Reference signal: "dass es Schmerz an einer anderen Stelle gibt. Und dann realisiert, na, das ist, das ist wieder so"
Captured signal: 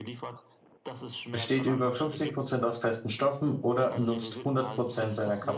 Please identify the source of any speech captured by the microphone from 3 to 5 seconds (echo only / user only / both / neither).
both